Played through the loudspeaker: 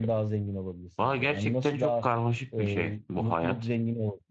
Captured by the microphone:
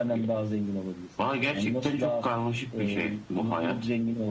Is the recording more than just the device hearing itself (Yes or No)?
No